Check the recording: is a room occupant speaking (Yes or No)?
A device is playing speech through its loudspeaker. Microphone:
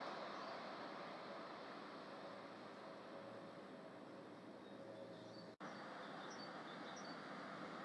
No